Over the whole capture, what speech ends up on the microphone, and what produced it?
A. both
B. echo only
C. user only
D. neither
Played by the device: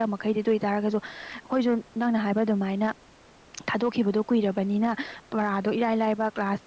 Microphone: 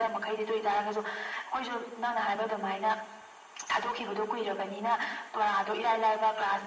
B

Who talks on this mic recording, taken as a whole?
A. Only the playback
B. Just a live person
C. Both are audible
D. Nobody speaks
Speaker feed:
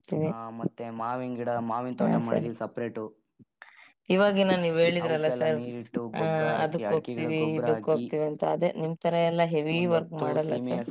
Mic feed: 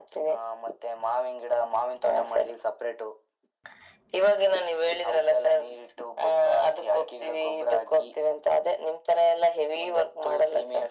A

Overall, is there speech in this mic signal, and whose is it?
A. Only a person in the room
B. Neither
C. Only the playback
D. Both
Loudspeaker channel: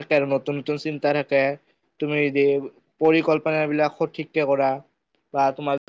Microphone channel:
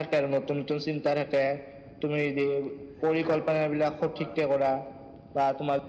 D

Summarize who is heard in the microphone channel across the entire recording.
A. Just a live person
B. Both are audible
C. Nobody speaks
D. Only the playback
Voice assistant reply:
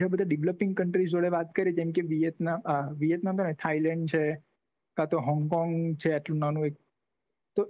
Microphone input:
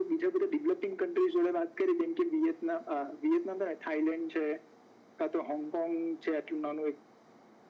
D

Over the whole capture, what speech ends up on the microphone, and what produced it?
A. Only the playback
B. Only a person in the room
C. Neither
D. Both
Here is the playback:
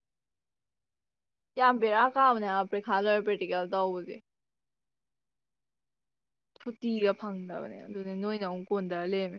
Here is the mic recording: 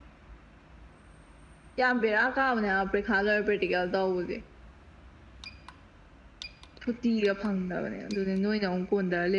A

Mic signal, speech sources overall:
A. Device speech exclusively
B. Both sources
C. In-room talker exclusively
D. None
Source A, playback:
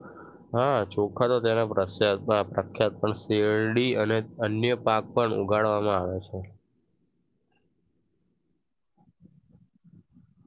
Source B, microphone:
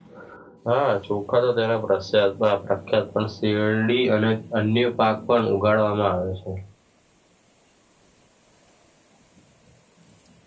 A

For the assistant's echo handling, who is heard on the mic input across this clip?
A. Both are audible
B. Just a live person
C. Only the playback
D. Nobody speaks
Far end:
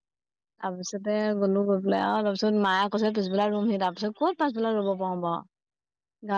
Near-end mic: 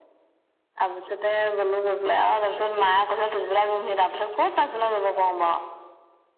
C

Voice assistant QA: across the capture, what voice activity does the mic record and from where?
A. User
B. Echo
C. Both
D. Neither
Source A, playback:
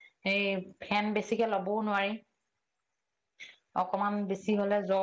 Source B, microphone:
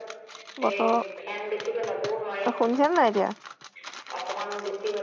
C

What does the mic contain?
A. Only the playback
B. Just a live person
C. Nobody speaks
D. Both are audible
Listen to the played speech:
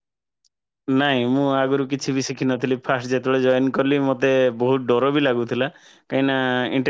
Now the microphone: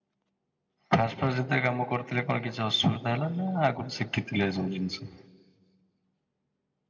B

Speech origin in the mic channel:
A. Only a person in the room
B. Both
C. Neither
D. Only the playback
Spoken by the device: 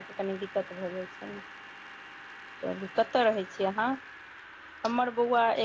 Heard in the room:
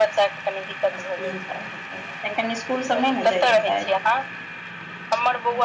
B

